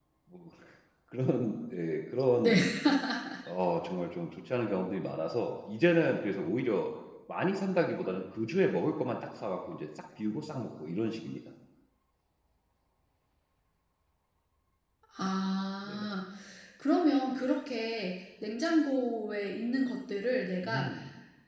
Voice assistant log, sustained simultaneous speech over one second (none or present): none